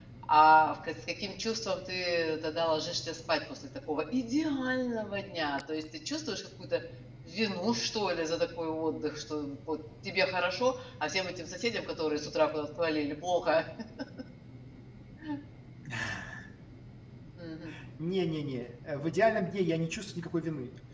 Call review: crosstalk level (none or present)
none